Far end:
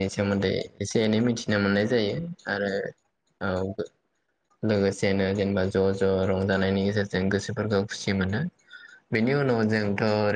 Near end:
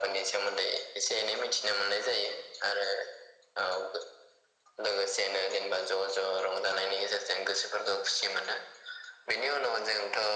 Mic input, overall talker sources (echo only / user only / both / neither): echo only